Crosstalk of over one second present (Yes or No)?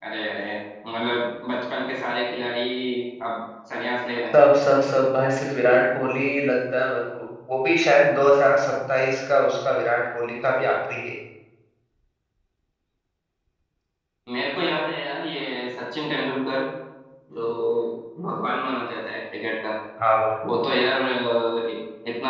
No